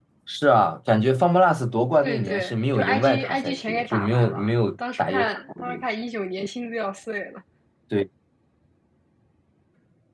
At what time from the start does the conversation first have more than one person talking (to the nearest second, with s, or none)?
2 s